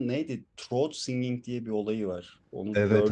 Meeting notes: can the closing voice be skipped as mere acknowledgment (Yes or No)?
No